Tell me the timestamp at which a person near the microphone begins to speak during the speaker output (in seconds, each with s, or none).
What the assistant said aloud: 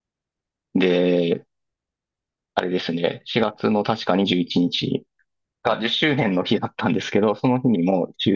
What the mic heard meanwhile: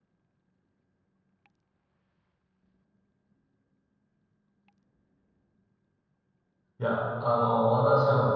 6.8 s